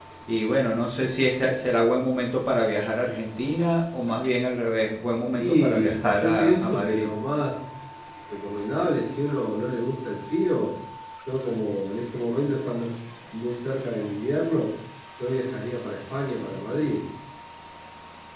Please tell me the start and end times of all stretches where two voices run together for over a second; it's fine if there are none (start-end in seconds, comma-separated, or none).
5.4-7.1